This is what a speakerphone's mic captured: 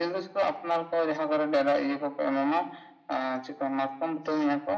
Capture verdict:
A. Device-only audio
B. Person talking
A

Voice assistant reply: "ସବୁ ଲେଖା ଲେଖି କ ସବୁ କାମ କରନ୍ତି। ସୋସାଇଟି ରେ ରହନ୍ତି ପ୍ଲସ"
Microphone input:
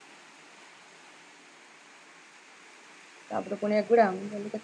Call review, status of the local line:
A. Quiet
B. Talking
B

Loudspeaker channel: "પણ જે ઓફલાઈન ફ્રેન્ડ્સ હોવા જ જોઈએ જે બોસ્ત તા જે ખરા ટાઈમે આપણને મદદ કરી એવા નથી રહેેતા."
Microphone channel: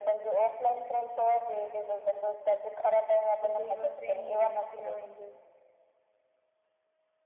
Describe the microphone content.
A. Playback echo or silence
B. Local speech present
B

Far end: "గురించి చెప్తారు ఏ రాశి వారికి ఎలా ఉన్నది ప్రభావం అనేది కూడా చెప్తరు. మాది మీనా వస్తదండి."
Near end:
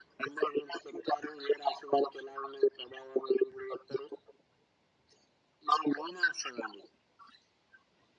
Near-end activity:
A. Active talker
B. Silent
B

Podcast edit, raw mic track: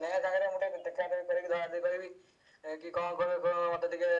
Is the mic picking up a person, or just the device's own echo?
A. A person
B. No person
B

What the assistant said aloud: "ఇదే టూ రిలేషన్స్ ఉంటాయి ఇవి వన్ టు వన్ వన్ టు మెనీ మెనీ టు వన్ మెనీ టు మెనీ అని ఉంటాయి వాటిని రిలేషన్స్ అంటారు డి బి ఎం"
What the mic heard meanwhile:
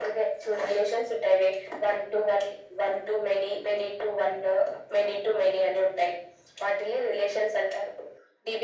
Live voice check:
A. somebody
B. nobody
B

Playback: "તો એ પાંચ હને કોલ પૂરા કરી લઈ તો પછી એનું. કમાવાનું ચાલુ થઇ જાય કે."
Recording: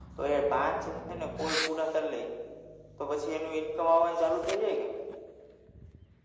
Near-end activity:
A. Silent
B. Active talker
A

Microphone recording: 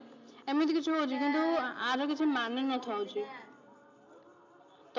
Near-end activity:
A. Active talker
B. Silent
A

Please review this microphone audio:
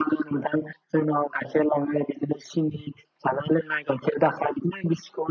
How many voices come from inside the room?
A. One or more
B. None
B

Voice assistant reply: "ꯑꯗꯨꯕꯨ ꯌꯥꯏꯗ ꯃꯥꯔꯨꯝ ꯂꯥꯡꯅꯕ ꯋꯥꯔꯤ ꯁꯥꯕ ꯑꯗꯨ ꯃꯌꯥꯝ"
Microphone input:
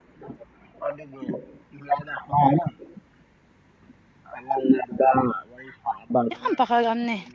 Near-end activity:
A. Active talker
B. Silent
A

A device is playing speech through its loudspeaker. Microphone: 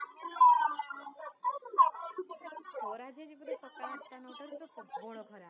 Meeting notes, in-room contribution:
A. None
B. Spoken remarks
B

